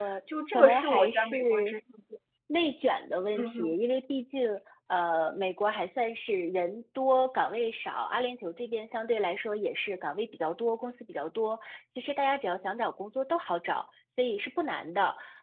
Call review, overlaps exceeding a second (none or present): present